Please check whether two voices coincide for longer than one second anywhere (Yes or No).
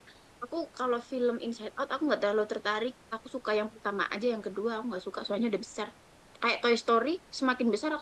No